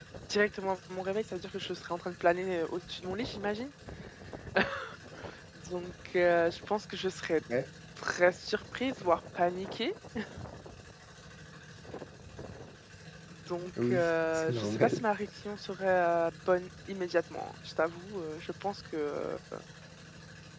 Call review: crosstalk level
present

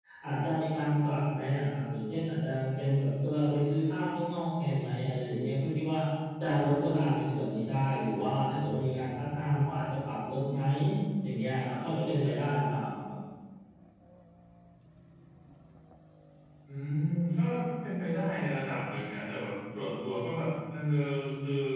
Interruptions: none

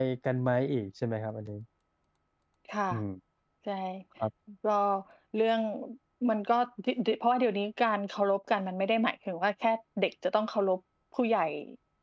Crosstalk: none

